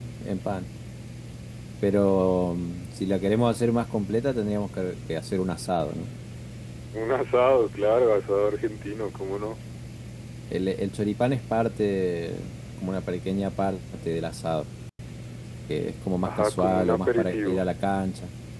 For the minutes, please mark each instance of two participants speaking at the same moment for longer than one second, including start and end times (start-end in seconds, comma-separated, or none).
16.2-17.6